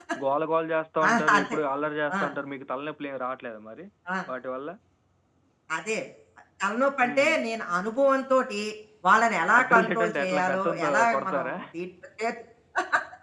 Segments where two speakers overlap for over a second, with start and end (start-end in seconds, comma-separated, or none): 9.5-11.6